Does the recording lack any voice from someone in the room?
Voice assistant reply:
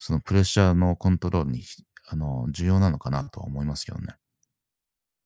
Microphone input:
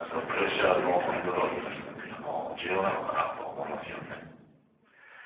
No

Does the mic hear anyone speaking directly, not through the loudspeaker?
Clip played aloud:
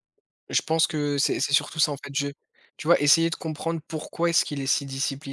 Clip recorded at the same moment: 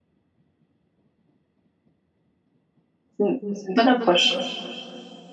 Yes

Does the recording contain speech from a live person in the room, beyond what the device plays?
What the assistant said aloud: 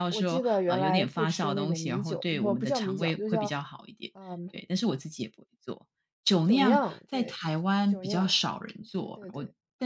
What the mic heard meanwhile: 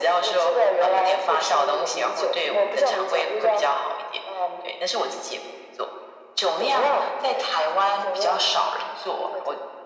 No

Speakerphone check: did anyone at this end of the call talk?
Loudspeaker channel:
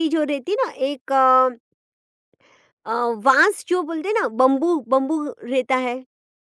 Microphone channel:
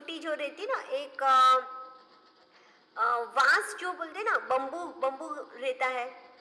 No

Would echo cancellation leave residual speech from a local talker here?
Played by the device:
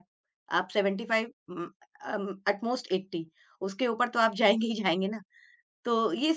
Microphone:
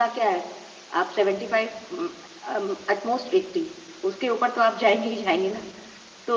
No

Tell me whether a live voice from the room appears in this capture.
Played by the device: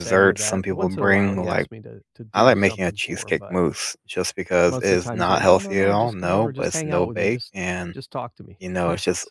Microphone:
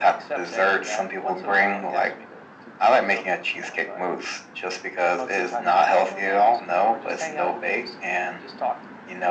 No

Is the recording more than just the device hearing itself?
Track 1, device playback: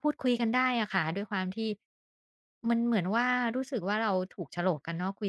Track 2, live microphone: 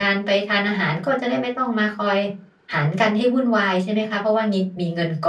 Yes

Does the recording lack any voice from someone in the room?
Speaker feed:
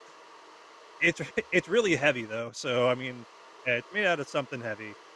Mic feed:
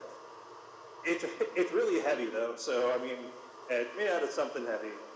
Yes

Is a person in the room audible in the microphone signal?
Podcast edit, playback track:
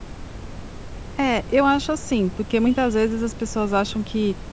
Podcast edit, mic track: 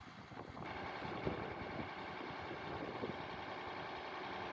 No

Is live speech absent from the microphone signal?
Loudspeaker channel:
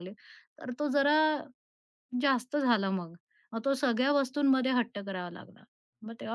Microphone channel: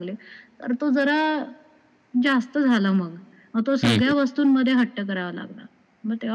No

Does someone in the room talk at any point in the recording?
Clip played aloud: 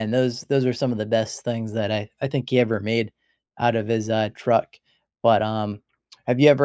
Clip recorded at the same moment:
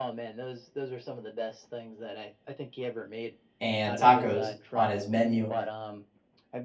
Yes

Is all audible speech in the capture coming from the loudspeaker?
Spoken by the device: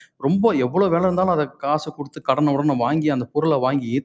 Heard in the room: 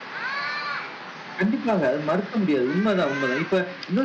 No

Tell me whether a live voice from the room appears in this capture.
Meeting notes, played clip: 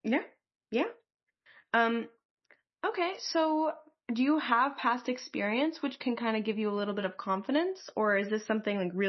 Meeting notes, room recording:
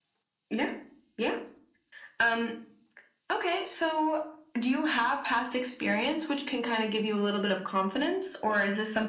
No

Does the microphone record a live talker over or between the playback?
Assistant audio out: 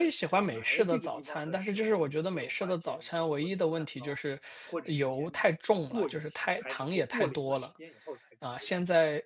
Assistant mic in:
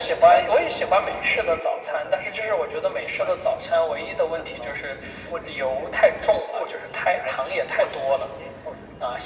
No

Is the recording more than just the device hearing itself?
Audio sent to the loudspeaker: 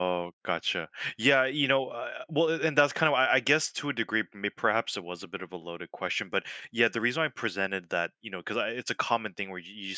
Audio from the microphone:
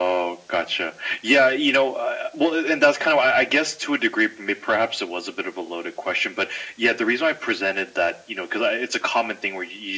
No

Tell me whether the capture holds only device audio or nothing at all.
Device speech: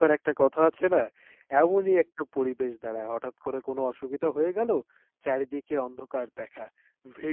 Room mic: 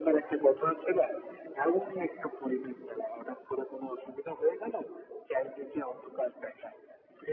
Yes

